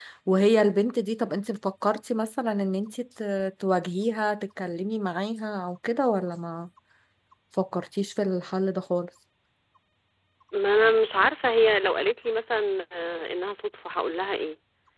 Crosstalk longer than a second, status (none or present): none